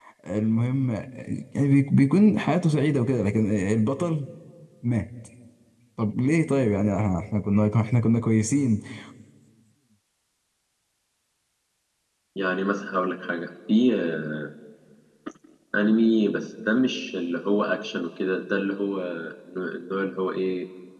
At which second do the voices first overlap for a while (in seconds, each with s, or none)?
none